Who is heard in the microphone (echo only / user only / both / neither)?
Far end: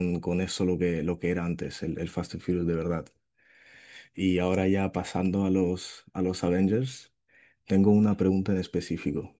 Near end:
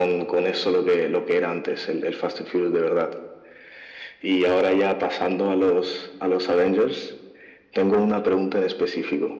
echo only